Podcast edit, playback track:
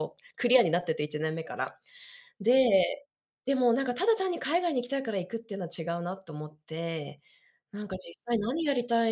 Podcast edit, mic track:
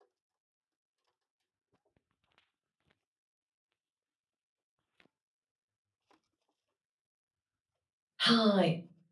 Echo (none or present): none